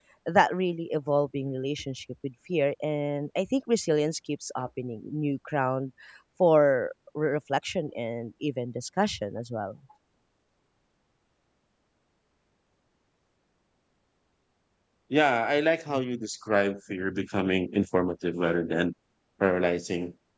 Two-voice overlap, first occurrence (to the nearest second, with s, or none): none